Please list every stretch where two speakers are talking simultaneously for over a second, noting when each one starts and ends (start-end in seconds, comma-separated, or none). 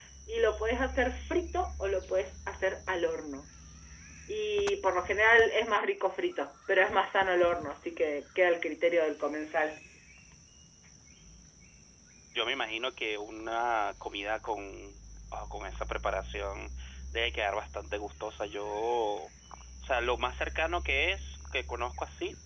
none